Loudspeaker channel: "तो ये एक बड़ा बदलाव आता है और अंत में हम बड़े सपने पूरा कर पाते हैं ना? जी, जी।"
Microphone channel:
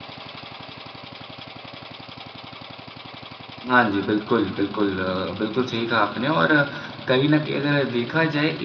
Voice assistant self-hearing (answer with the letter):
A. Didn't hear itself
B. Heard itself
A